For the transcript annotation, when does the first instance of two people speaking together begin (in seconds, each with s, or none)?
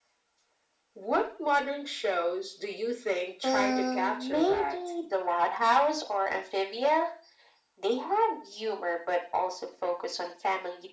3.4 s